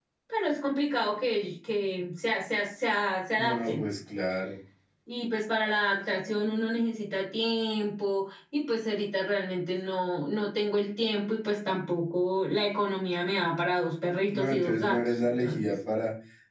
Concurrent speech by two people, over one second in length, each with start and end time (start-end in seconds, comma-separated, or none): 14.3-15.7